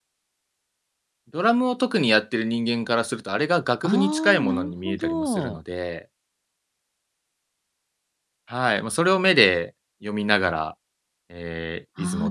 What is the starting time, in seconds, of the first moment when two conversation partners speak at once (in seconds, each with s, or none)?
3.8 s